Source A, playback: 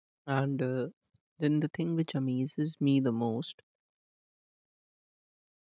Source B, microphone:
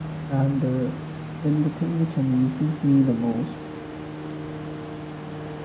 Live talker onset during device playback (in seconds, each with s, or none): none